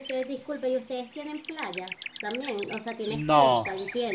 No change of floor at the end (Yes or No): No